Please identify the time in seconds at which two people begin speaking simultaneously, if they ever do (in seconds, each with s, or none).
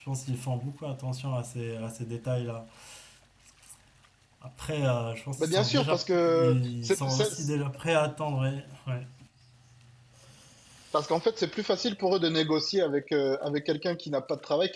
5.4 s